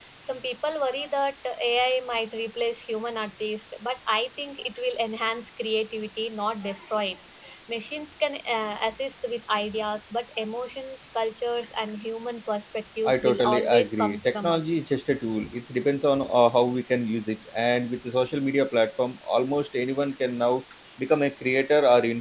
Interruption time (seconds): 13.0 s

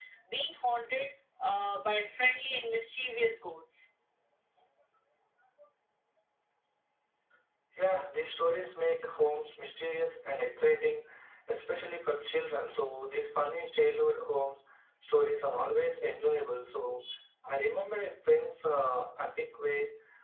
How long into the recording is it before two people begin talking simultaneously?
none

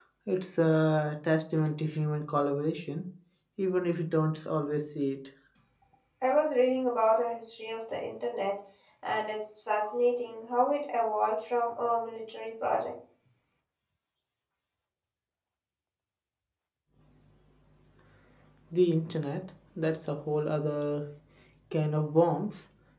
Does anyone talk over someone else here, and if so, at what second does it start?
none

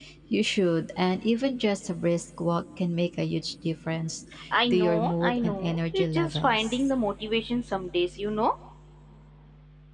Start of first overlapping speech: 4.7 s

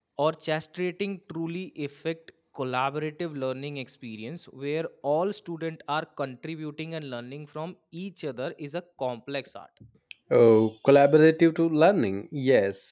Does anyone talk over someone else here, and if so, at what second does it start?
none

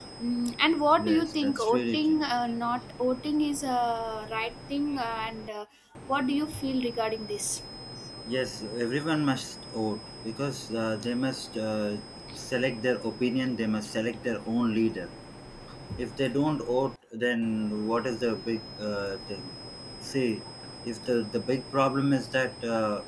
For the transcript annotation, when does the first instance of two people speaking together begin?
1.0 s

